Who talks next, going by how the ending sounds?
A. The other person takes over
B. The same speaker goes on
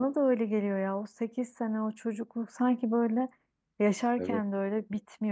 B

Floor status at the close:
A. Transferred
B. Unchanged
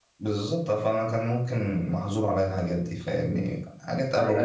A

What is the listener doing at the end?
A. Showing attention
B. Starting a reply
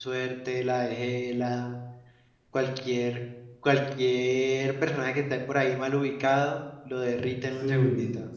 B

